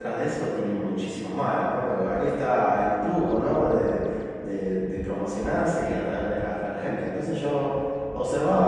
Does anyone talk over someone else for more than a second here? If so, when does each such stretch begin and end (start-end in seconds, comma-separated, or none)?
none